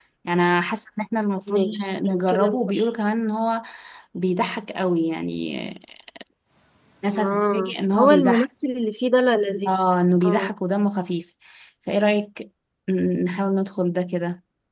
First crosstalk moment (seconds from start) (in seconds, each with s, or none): 1.5 s